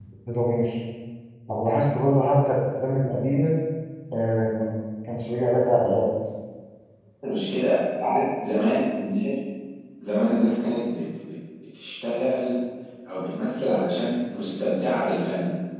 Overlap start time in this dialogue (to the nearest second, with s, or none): none